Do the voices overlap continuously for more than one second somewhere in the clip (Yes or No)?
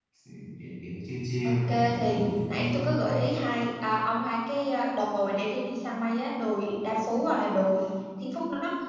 Yes